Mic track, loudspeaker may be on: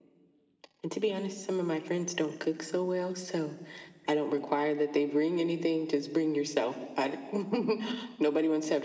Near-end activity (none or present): none